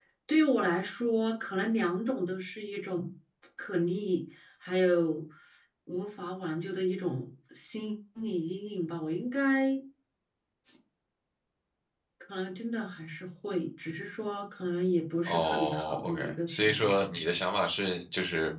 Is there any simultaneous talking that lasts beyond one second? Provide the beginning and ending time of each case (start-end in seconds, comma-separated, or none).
15.2-16.9